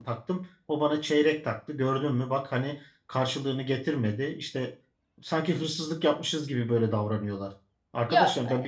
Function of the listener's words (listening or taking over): listening